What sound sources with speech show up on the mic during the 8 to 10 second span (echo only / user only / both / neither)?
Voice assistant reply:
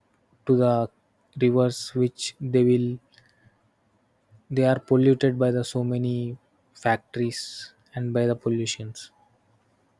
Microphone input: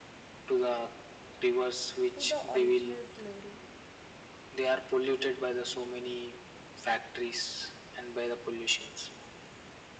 echo only